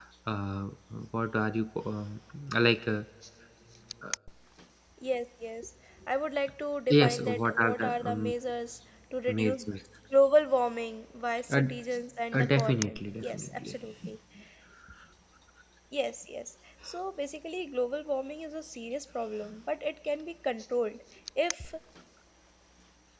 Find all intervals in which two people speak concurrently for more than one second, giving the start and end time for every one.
6.9-8.3, 12.3-13.7

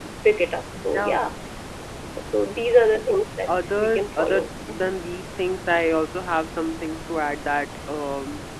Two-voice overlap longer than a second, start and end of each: 3.5-4.9

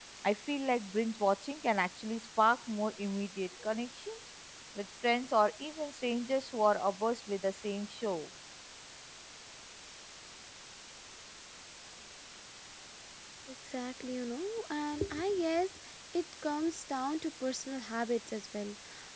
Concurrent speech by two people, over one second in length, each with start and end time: none

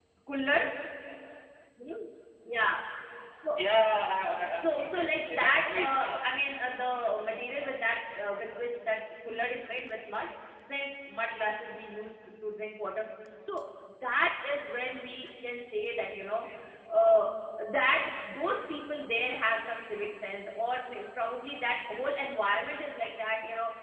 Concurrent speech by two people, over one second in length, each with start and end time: 4.6-6.4

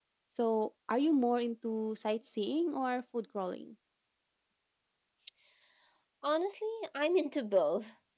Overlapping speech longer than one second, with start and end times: none

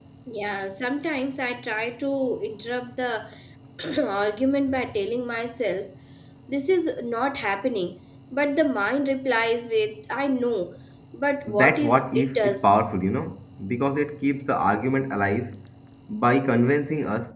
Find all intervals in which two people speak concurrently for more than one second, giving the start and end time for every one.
11.5-12.8

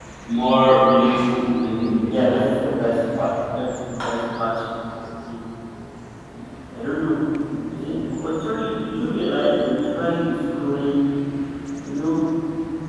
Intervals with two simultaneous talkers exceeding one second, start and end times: none

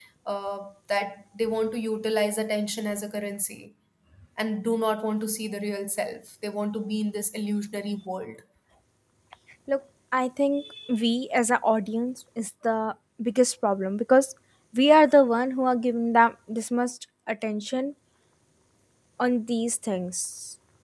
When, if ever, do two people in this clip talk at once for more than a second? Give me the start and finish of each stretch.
none

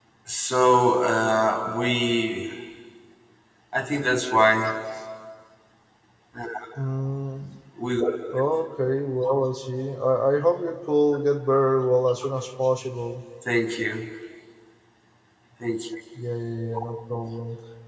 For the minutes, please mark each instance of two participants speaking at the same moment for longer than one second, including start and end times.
none

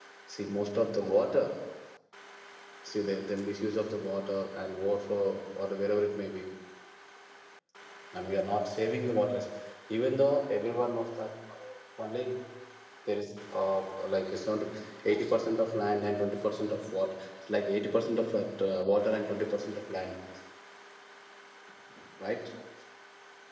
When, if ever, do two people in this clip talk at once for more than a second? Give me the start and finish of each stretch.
none

